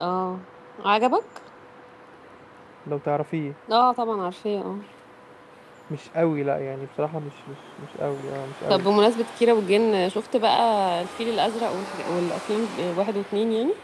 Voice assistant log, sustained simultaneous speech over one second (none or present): none